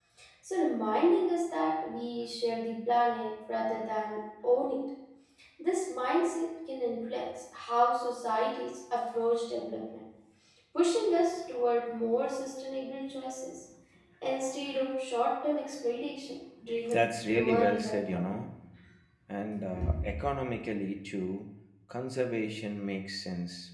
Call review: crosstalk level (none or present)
present